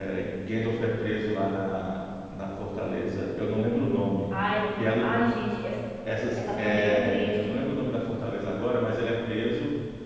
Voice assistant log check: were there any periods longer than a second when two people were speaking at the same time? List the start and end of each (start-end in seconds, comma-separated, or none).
6.3-7.6